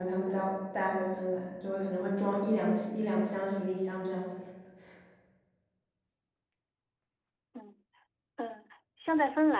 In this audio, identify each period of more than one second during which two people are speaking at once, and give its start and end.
none

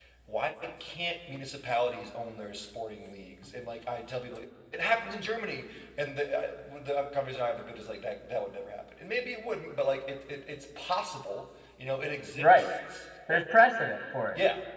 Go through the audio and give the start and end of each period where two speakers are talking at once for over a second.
none

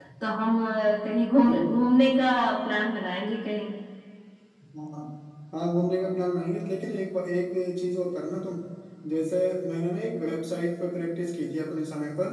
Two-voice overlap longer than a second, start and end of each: none

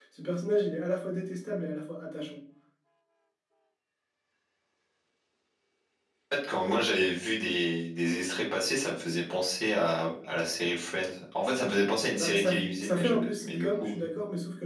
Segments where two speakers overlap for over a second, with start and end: 12.2-14.1

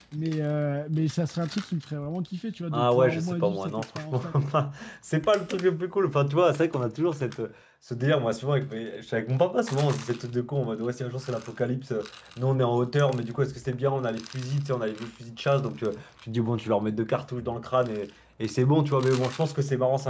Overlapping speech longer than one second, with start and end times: 2.7-4.3

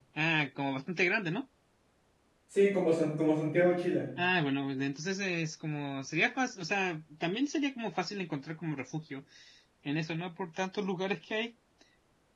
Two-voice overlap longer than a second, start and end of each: none

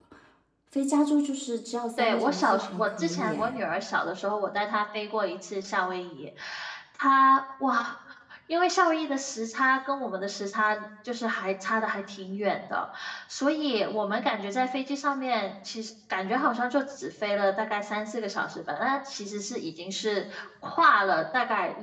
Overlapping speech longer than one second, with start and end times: 2.0-3.5

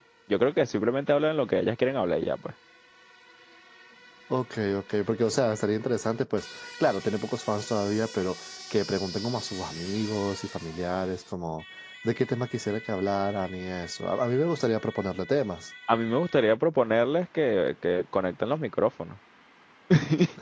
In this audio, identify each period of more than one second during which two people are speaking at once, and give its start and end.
none

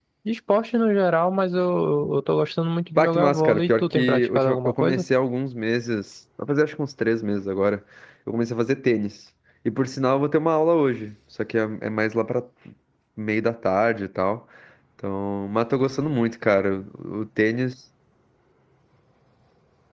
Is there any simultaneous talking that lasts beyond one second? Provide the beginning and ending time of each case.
3.0-5.0

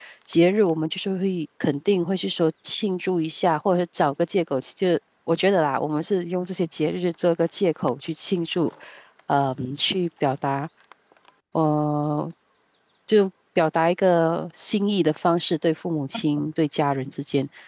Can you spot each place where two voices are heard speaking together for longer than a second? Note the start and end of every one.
none

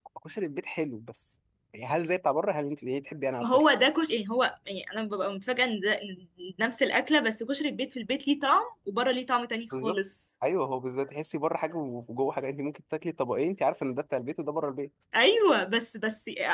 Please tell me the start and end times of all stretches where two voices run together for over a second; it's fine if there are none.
none

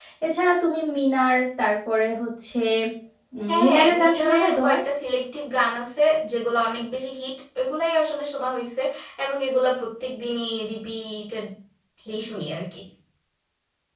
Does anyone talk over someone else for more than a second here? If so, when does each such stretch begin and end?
3.5-4.8

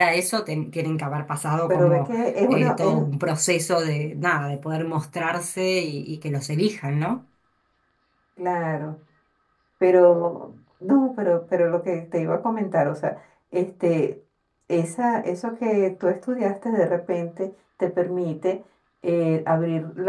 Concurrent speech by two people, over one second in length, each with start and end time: 1.7-3.0

